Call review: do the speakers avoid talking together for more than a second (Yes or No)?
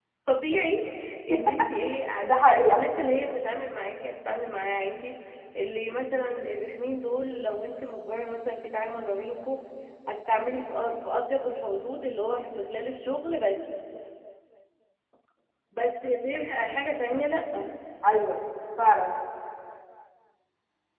Yes